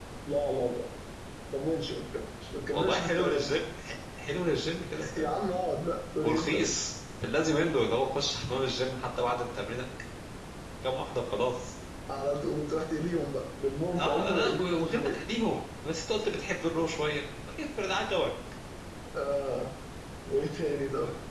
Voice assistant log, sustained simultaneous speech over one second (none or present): present